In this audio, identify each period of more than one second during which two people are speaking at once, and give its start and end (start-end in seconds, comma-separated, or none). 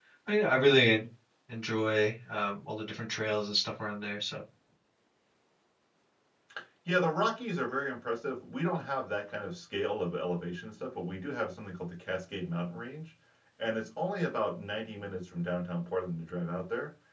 none